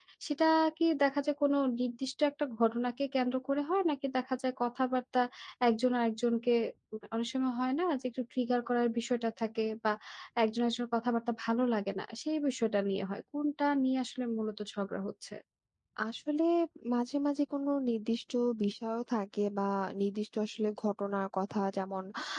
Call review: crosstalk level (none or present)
none